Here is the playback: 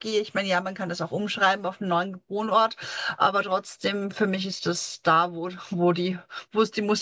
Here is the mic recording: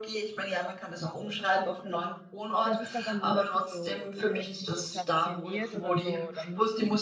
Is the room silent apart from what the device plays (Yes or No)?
No